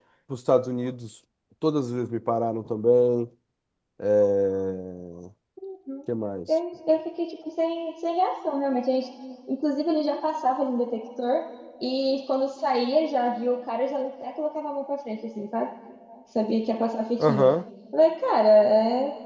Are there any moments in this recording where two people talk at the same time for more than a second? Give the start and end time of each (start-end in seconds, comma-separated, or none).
none